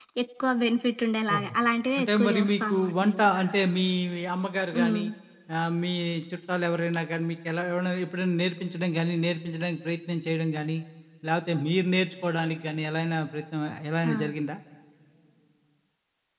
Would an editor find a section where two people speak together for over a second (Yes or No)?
Yes